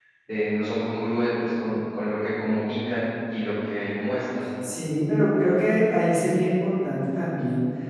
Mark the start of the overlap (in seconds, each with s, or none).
none